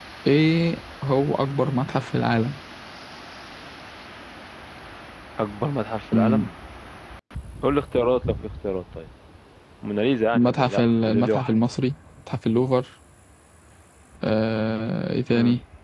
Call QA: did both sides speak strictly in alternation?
No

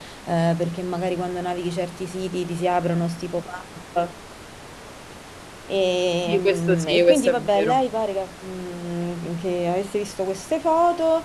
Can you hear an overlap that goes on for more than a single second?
Yes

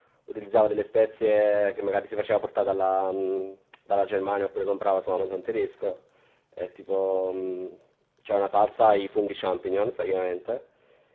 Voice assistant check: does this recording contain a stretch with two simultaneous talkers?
No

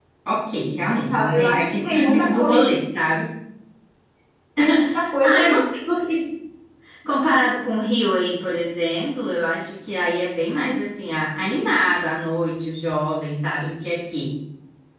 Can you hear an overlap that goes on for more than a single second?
Yes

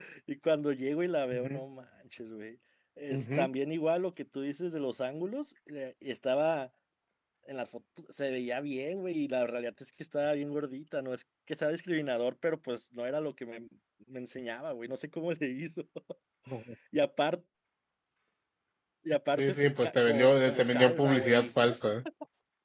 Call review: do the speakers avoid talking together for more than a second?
No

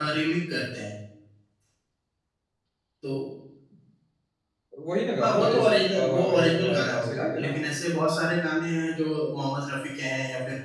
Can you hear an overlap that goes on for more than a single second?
Yes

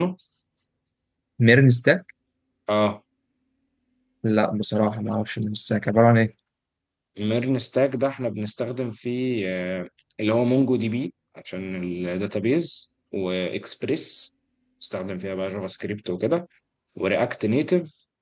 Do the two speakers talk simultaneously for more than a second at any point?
No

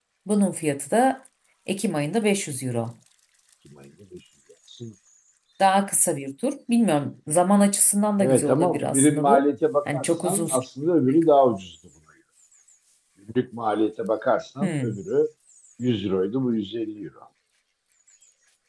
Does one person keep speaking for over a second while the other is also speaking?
Yes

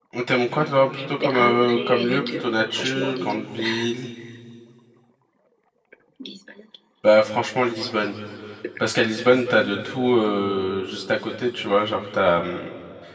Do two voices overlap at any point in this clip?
Yes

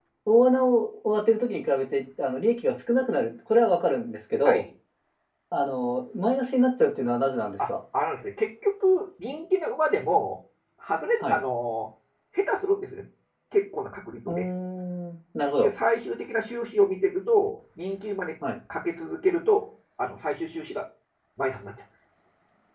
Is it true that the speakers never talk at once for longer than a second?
Yes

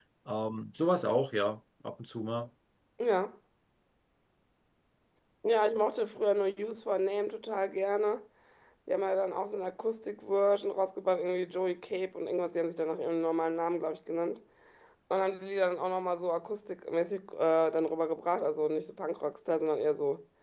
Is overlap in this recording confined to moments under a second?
Yes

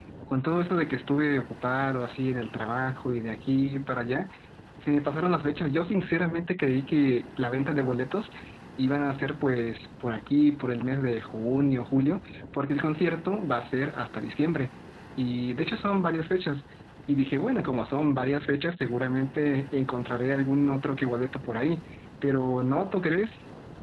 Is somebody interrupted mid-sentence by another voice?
No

